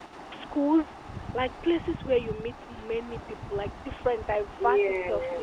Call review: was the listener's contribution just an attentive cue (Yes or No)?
Yes